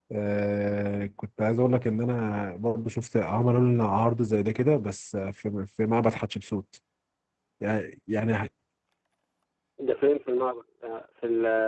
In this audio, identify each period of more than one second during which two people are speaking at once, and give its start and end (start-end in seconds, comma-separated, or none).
none